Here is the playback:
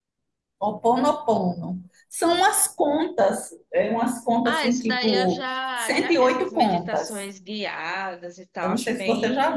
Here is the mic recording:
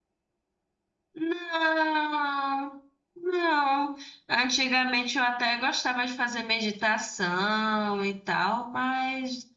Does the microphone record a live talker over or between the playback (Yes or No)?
Yes